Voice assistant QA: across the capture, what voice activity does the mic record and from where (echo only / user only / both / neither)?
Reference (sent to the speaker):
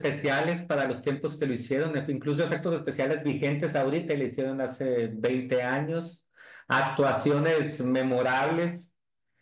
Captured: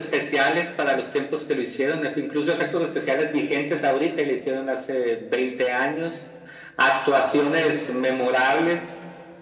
echo only